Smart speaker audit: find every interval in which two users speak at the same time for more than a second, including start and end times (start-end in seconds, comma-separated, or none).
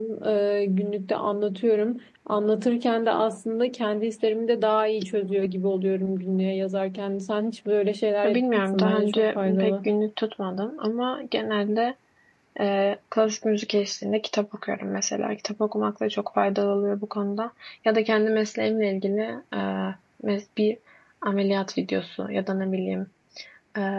8.2-9.9